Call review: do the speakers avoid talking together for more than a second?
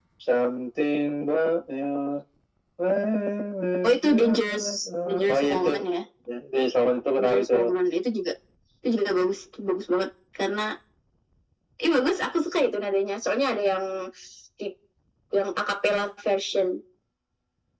No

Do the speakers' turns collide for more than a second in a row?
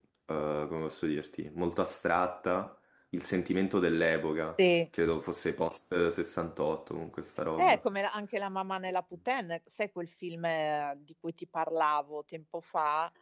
No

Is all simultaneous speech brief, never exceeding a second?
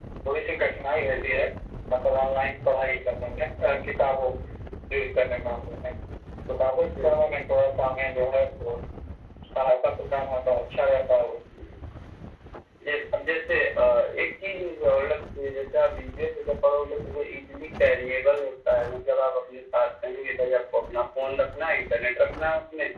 Yes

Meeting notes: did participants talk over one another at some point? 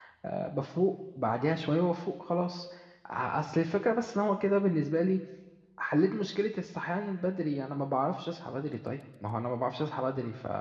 No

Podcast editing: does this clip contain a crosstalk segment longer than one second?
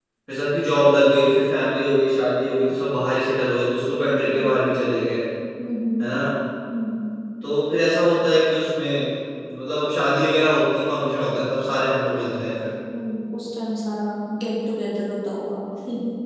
No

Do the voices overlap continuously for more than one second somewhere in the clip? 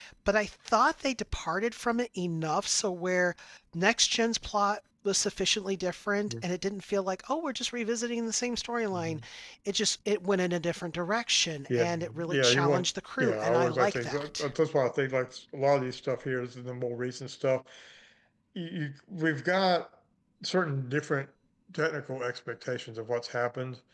Yes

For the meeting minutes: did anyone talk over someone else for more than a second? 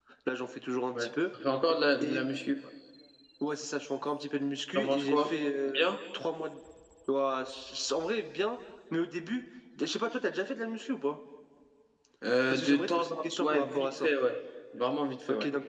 Yes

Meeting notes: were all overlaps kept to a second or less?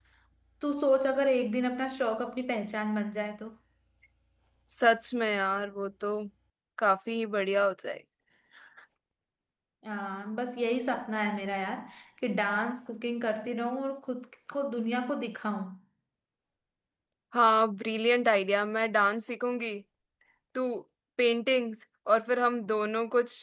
Yes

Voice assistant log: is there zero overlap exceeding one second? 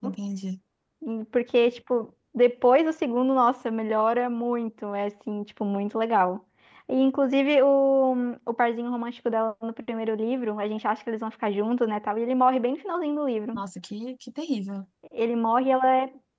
Yes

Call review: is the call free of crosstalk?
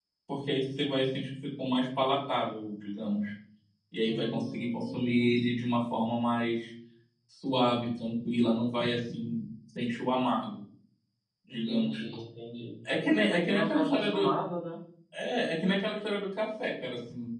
No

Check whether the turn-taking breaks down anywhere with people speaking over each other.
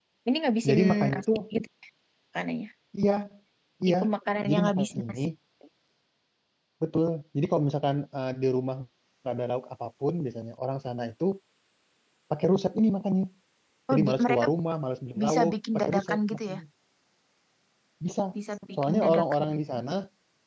Yes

